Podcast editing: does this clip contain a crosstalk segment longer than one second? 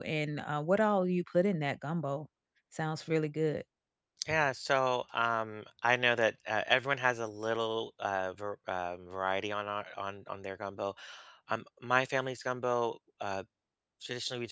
No

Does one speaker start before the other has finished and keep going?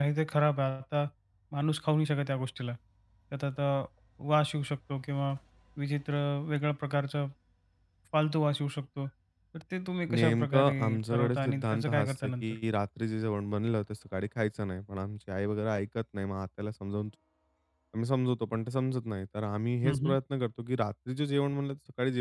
Yes, from 10.1 s

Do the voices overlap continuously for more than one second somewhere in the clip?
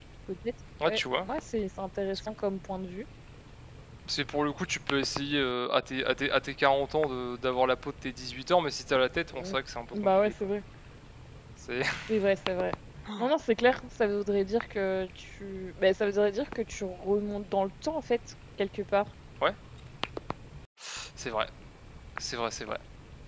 No

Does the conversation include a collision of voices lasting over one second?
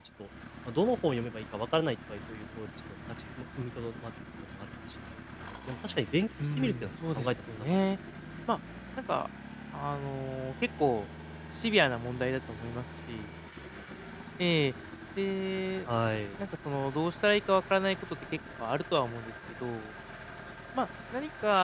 Yes, from 6.4 s

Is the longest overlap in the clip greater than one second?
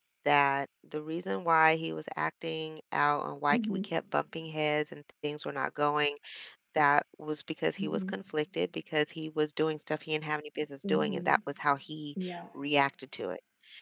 No

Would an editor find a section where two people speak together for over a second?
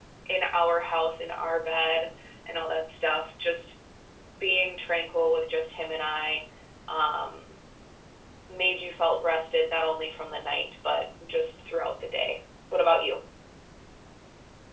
No

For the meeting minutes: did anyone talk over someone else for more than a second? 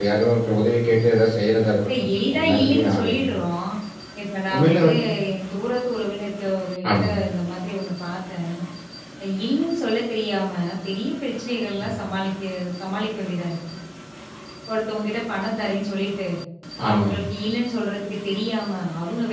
Yes, from 1.9 s

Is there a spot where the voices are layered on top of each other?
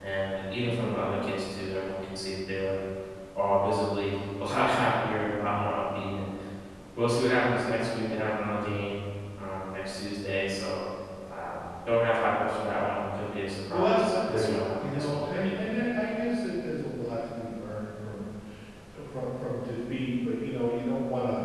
Yes, from 13.7 s

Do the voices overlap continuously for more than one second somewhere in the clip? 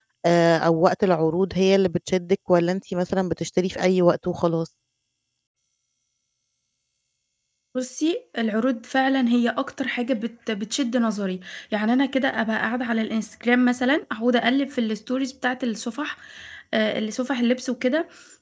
No

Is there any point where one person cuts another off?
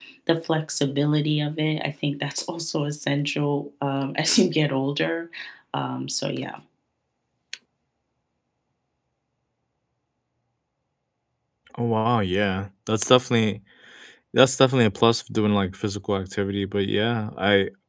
No

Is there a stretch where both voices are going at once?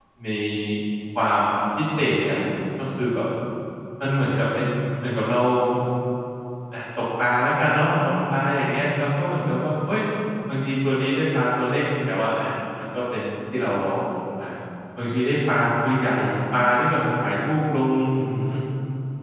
No

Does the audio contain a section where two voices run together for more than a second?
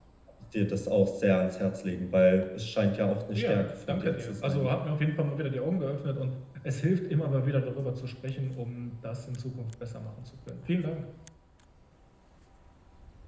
Yes, from 3.3 s

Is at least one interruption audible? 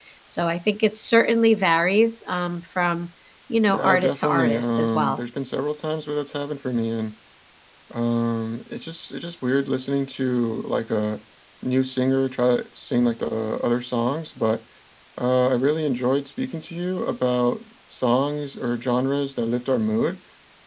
Yes, from 3.6 s

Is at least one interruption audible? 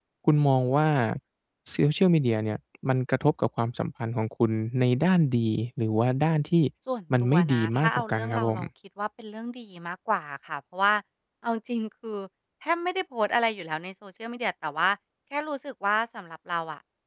Yes, from 7.2 s

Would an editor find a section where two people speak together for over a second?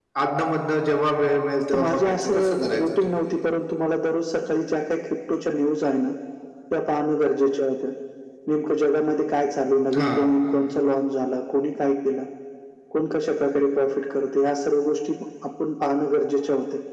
Yes, from 1.7 s

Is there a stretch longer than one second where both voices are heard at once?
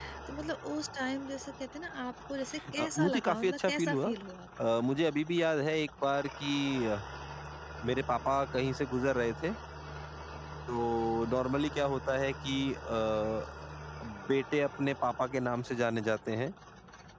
Yes, from 2.8 s

